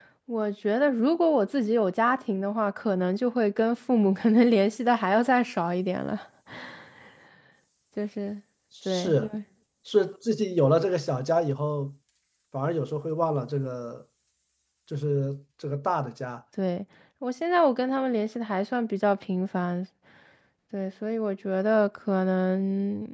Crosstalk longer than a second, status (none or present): none